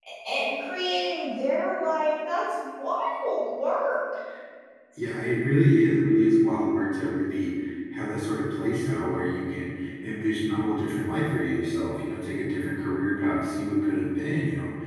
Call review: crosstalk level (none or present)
none